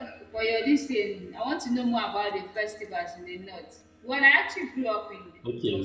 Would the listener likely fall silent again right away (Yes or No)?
No